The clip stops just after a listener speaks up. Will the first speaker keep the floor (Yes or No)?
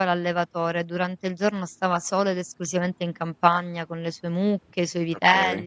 Yes